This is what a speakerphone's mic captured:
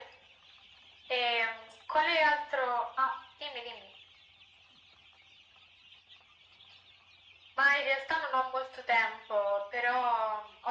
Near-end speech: none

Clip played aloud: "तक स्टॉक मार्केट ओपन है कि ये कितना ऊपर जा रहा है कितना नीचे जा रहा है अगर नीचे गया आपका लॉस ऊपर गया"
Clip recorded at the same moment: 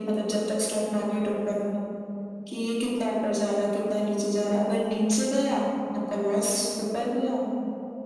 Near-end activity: none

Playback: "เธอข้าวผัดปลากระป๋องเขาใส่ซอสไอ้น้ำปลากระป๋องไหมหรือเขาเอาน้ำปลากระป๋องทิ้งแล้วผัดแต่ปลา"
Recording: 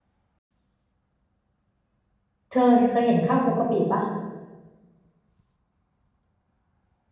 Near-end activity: present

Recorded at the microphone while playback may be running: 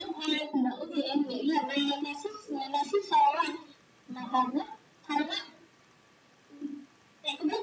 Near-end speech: none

